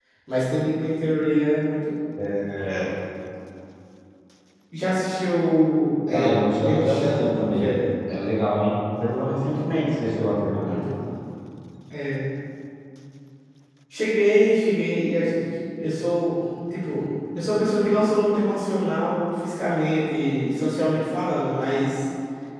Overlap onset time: 6.1 s

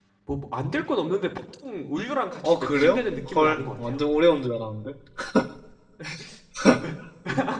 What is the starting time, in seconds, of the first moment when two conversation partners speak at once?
2.4 s

